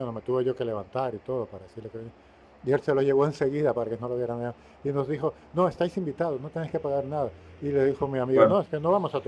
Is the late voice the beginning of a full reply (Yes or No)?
No